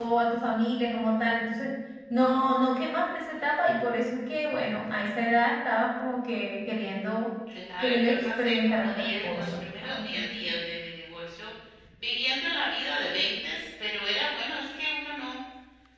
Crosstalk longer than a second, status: present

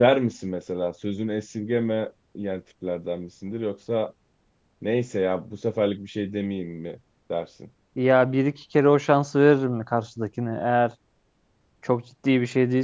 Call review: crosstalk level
none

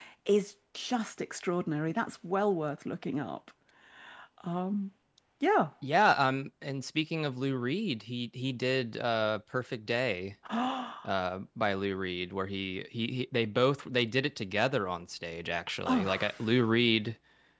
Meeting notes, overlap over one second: none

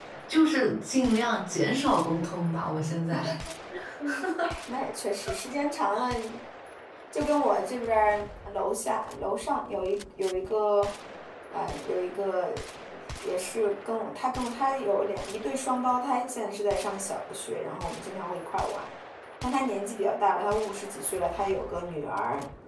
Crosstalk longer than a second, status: none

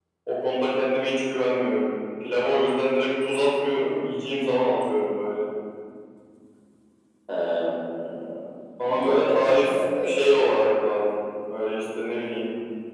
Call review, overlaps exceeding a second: present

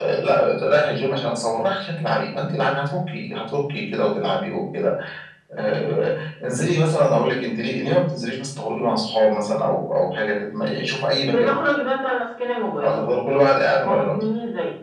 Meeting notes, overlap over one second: none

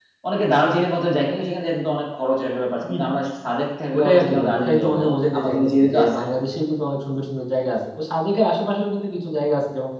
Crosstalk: present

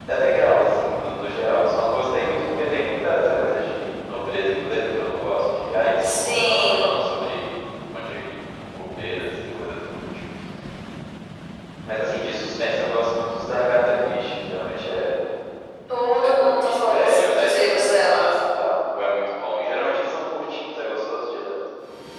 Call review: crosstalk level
present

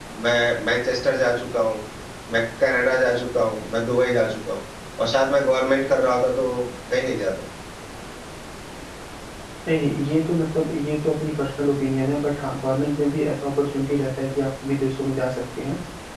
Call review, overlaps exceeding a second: none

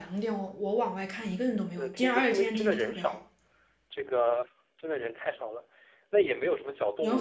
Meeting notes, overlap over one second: present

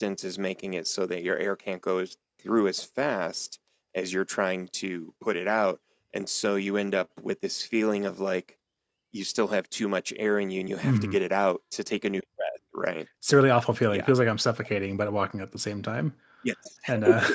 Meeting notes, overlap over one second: none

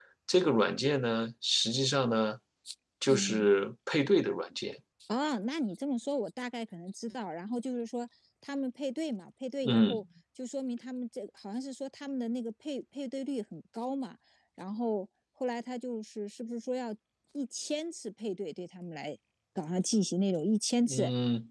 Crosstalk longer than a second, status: none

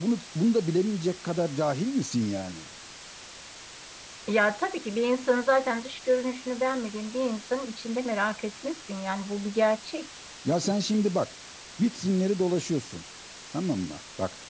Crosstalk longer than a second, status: none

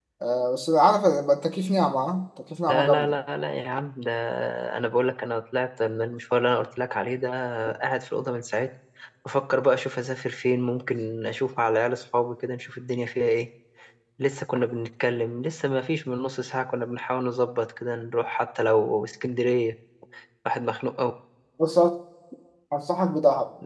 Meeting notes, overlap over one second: none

